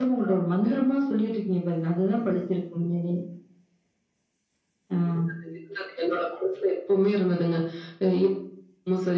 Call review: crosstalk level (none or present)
none